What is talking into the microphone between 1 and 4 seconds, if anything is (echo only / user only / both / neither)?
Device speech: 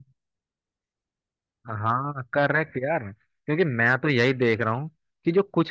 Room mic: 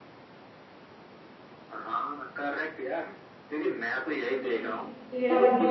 echo only